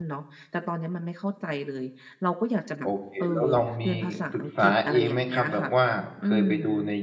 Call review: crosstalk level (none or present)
present